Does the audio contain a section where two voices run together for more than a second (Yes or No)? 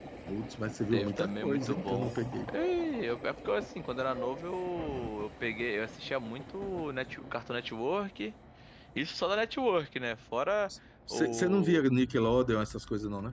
Yes